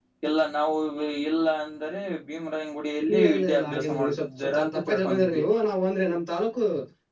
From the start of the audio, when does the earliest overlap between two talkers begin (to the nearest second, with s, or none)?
3 s